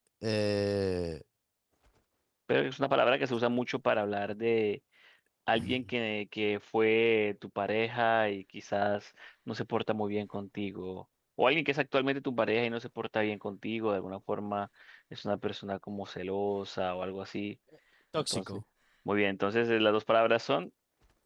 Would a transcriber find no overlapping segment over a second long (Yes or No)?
Yes